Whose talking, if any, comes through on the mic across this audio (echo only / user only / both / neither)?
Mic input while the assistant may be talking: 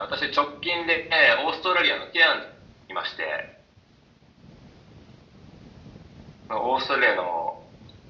echo only